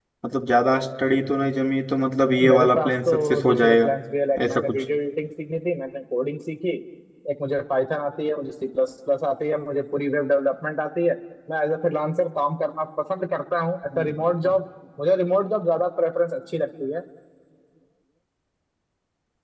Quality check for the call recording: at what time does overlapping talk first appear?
2.5 s

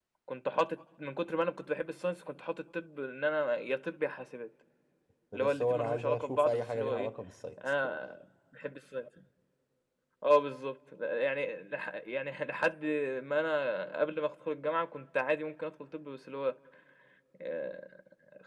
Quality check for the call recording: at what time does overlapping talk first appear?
5.3 s

